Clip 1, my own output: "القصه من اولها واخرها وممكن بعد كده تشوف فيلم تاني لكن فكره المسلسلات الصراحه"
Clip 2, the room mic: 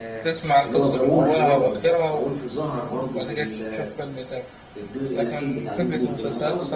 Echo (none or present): present